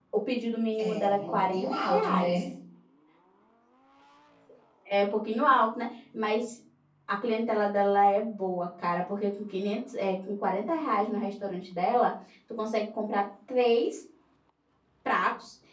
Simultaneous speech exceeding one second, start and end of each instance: 0.8-2.5

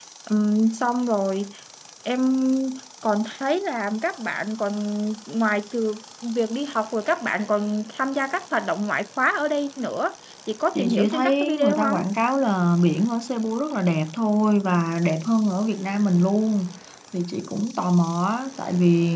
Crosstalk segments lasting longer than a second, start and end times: 10.8-12.0

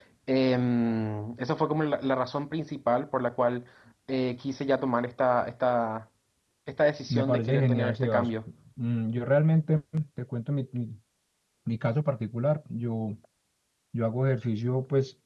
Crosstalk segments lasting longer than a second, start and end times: 7.1-8.3

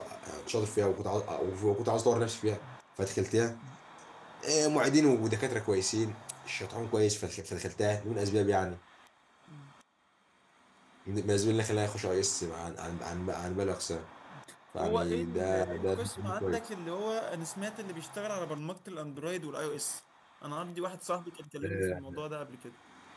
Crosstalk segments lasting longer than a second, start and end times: 14.8-16.7

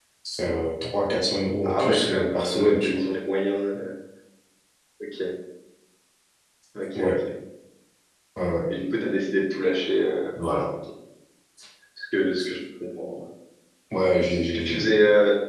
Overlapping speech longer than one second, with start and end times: 1.6-3.0

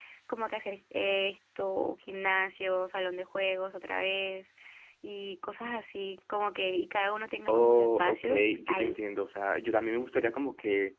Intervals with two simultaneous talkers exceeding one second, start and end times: 7.5-9.0

